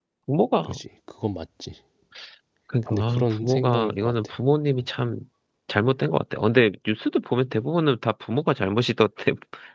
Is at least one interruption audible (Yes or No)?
Yes